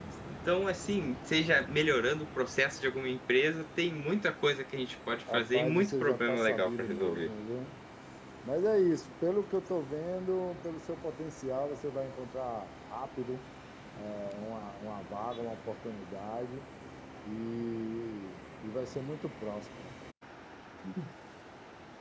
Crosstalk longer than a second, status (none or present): present